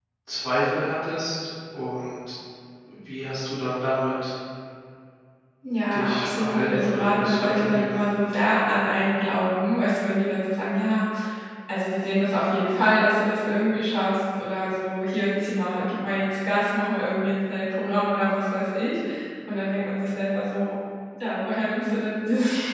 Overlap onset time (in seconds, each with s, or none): 5.9 s